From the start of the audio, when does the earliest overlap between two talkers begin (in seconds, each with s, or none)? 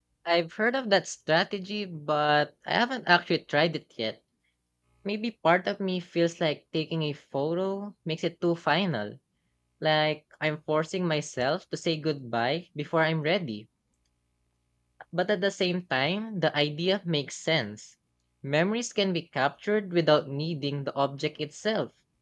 none